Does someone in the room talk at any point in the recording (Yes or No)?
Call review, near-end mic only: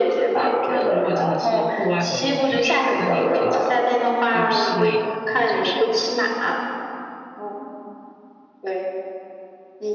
Yes